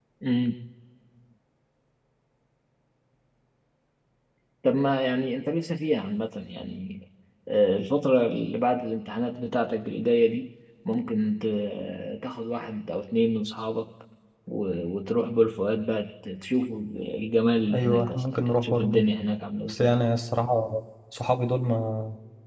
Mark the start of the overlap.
17.7 s

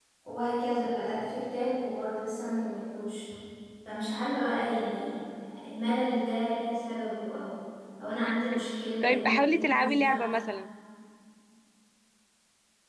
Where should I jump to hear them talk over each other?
9.0 s

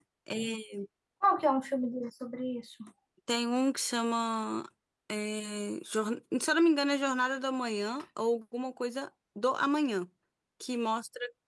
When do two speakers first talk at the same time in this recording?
none

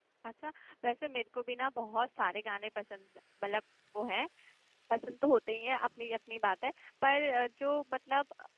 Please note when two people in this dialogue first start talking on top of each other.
none

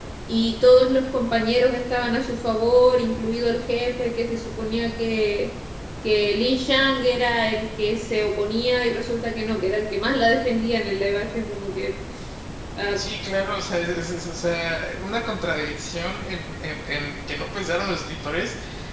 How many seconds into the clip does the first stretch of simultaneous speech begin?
none

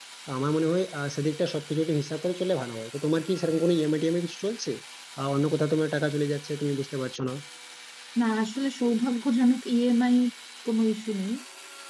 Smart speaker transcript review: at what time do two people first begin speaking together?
none

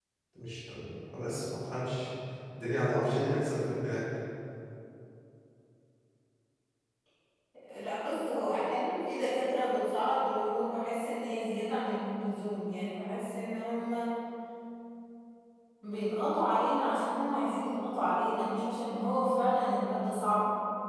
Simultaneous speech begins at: none

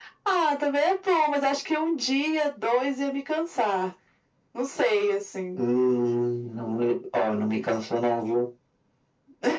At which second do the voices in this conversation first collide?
none

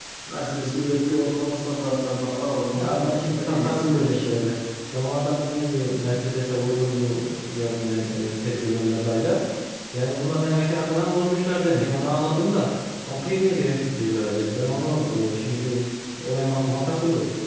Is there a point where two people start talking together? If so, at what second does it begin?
2.7 s

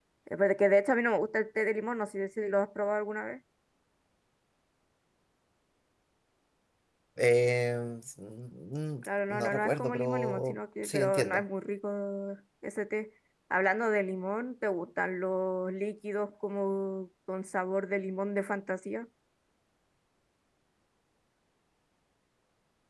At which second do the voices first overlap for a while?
9.0 s

